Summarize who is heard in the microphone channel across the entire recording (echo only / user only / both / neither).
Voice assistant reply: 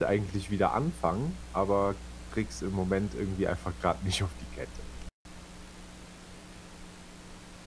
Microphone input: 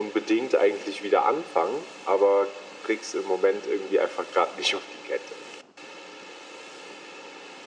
echo only